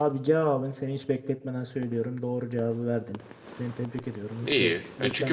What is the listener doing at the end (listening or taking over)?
taking over